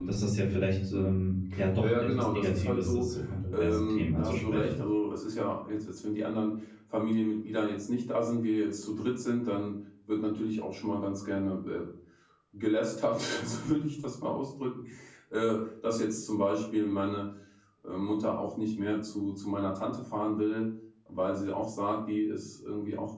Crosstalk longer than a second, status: present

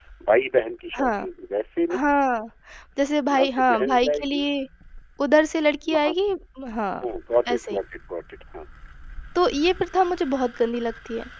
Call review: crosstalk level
present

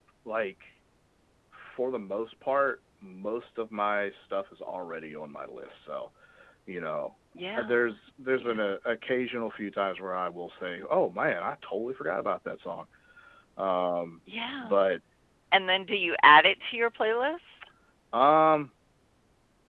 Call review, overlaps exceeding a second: none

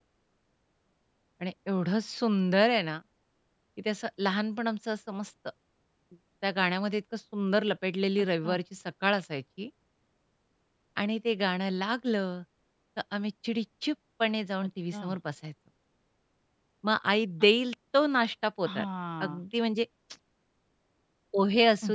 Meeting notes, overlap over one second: none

